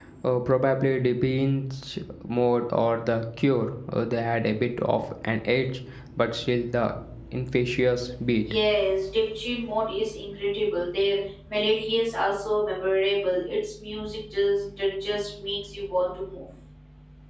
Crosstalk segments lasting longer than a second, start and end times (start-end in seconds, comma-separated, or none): none